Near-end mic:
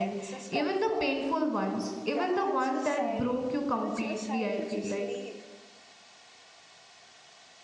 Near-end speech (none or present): present